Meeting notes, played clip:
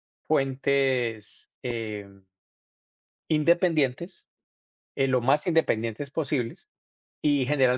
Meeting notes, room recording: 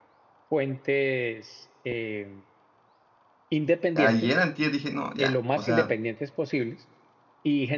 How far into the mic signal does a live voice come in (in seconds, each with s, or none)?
4.0 s